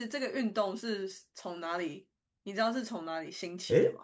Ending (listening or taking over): taking over